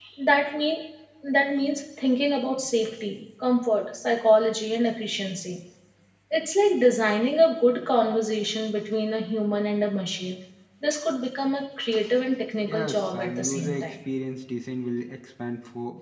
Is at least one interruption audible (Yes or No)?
Yes